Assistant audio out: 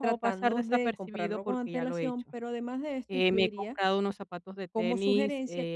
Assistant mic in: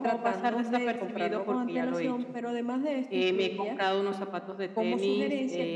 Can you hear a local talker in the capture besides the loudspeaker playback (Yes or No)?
No